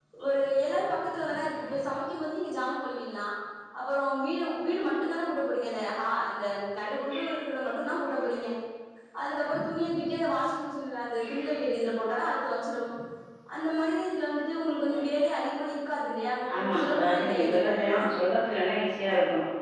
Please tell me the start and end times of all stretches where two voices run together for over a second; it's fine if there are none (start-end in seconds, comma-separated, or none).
16.6-18.0